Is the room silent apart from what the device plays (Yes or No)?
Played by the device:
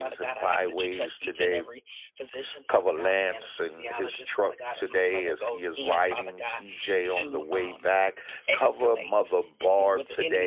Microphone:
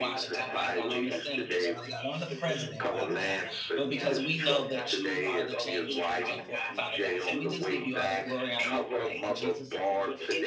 No